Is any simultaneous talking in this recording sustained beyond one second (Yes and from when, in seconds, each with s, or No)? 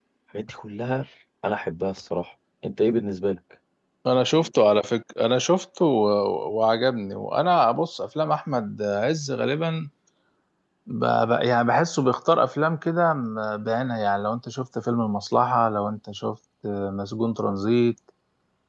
No